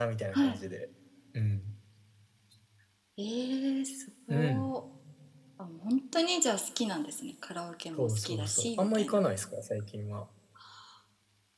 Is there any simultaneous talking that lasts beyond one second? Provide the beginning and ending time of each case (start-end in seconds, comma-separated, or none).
8.0-9.2